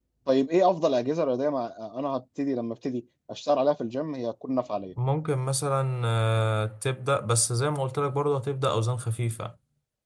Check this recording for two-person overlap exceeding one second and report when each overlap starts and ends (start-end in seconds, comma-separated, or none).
none